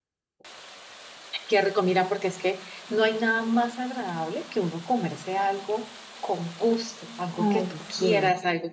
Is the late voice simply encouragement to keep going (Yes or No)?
Yes